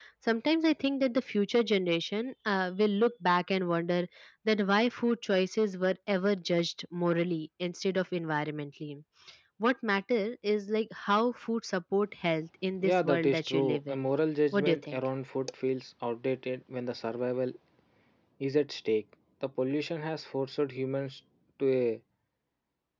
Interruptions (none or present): present